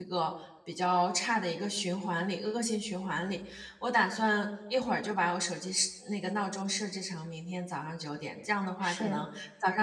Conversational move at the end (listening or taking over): listening